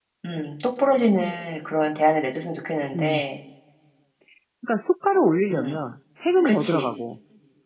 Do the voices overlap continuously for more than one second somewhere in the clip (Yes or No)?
No